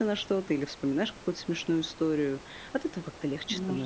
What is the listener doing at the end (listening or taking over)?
taking over